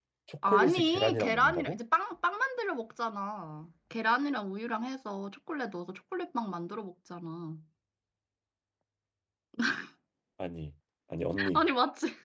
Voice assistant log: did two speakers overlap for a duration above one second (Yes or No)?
Yes